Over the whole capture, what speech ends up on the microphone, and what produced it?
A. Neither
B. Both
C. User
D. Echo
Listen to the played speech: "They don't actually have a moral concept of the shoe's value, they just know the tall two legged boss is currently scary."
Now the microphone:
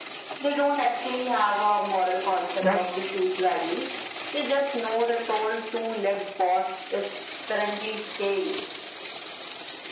B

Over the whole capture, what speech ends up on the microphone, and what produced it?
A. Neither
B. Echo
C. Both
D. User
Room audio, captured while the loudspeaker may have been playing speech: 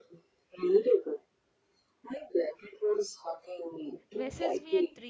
C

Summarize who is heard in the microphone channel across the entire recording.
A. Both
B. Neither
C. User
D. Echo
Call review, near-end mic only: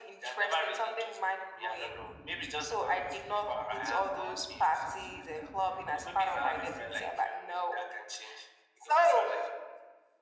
D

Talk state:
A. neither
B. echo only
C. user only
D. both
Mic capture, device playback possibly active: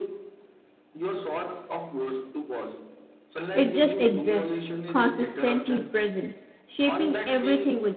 D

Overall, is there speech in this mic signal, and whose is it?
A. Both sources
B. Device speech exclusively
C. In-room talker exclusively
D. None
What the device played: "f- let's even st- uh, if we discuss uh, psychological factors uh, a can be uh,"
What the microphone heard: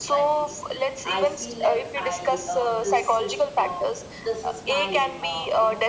A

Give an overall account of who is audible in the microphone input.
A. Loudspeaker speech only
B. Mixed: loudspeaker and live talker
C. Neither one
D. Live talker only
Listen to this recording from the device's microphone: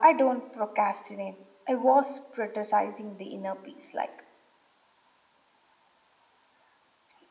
A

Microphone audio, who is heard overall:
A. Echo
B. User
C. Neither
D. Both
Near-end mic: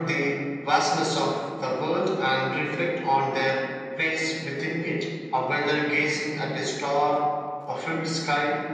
A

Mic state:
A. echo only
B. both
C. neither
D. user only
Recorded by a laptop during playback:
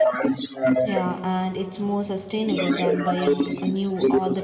B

